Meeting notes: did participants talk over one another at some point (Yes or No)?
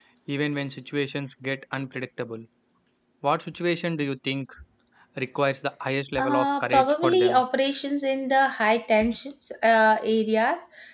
Yes